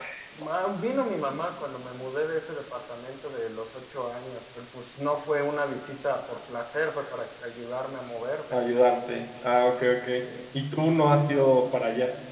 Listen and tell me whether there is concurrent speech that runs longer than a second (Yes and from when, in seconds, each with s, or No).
No